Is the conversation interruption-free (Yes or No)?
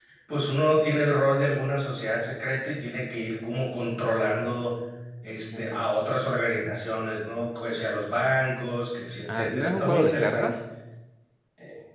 No